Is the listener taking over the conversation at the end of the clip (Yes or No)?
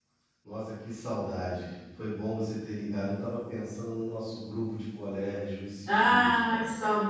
Yes